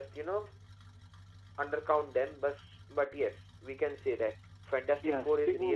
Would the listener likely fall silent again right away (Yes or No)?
No